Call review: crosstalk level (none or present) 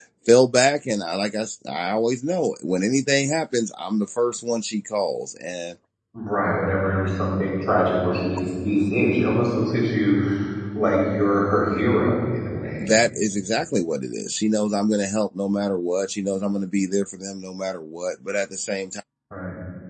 none